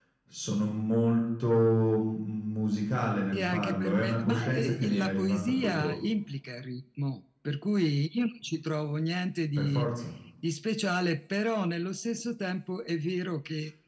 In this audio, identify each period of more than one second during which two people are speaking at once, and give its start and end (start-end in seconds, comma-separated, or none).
3.3-6.0